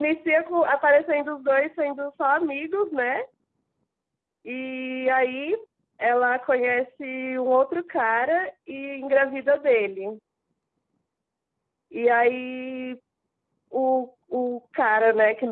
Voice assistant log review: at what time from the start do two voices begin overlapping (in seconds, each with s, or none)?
none